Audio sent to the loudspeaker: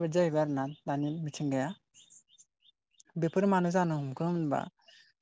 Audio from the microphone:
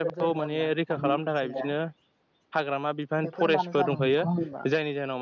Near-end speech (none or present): present